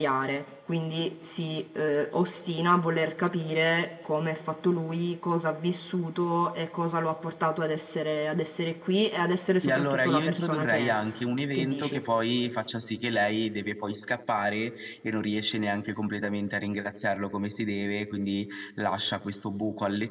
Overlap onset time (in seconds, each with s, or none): 9.6 s